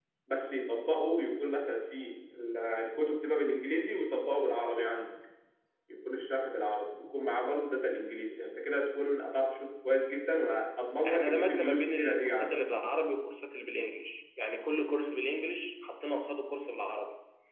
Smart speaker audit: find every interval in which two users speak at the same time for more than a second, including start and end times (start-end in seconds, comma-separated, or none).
11.1-12.6